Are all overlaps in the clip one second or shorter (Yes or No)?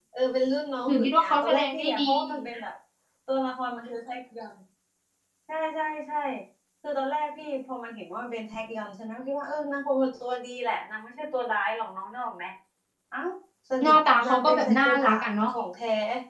No